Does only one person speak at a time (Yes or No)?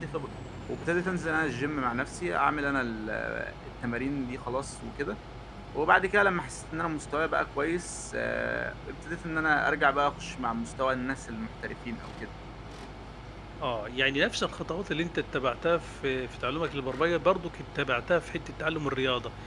Yes